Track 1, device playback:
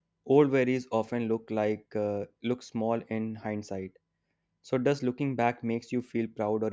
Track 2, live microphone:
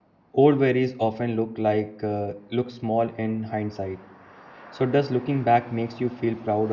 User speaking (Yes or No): No